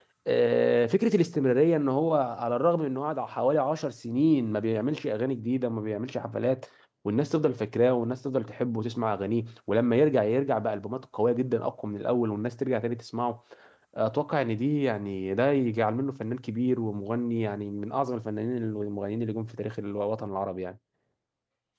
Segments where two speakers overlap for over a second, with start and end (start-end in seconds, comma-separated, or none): none